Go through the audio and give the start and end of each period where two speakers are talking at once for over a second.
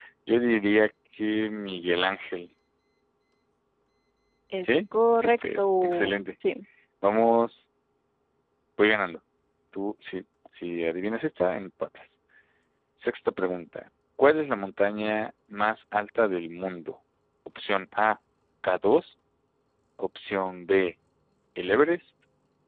4.6-6.2

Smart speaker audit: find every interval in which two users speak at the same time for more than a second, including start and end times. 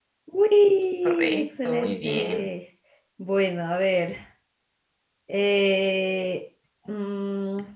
1.0-2.5

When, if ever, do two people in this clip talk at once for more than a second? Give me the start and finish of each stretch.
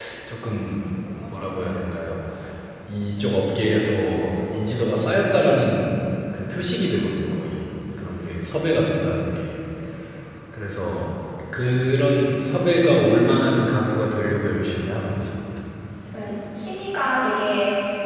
none

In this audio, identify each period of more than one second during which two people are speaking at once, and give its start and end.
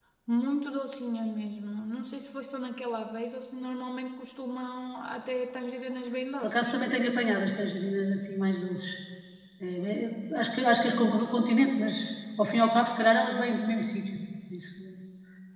none

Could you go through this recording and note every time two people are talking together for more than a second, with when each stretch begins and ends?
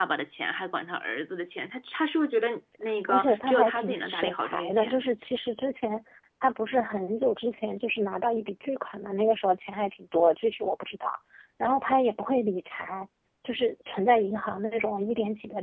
3.1-5.0

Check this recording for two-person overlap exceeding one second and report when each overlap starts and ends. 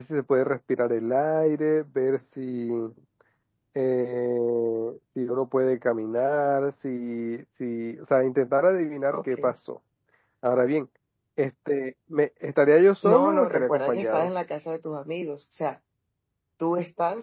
13.0-14.3

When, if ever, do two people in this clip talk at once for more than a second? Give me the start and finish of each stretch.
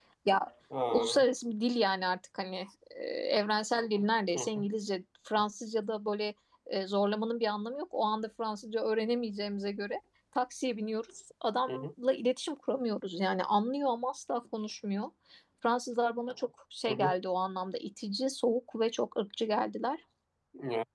none

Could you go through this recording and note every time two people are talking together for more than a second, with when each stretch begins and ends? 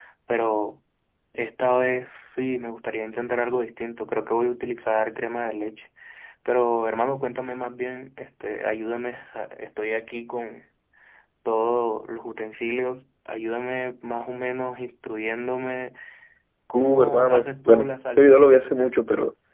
16.7-18.3

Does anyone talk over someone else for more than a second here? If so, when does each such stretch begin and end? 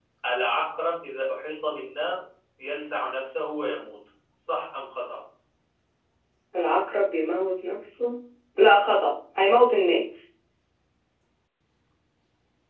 none

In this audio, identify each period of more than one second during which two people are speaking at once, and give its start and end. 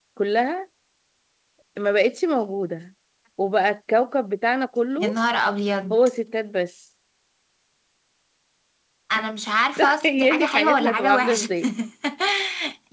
9.8-11.5

